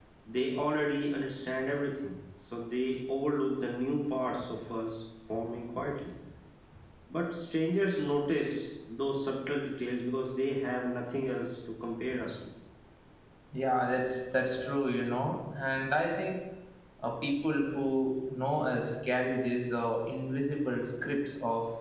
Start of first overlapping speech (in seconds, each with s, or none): none